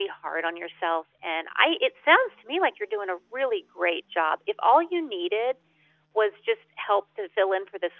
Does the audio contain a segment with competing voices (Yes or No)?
No